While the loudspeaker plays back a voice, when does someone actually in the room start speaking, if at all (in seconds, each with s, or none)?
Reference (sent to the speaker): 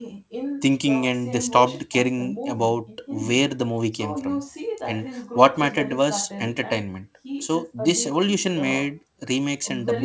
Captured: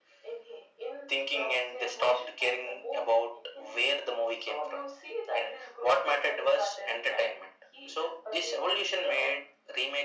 none